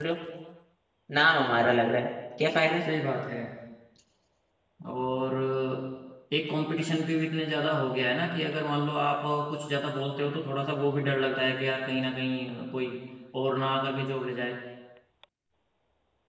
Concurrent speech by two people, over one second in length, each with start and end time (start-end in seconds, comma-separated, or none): none